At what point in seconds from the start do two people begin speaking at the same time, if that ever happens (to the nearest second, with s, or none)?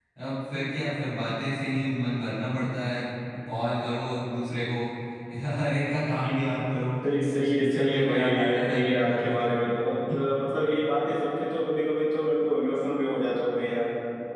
7 s